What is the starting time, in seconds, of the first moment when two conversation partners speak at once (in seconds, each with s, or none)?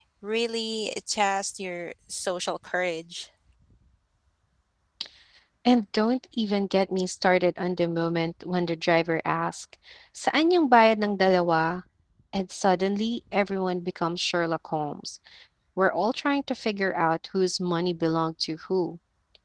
none